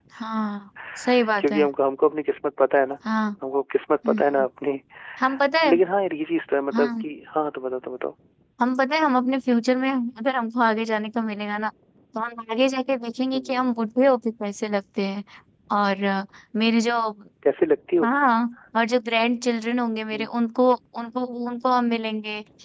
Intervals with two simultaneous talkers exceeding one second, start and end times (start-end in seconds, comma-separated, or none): none